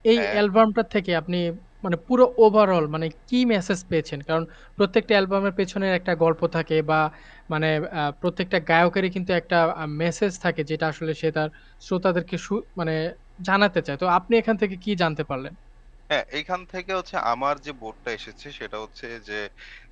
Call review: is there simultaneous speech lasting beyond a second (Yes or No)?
No